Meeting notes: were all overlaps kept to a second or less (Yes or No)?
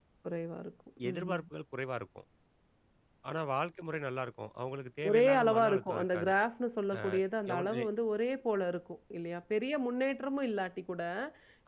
No